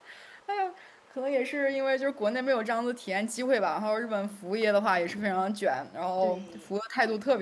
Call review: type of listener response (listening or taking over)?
listening